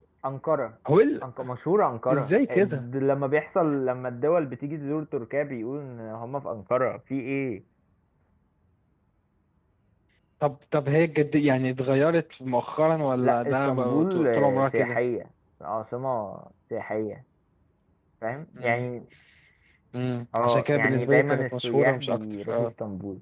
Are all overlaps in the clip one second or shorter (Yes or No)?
No